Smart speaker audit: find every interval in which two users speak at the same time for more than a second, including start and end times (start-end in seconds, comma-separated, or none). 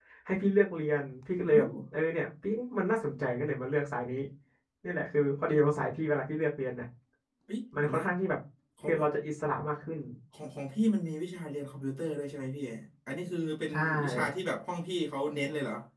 none